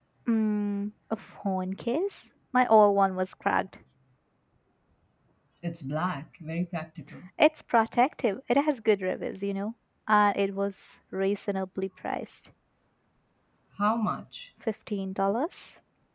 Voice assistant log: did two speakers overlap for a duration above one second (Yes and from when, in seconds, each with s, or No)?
No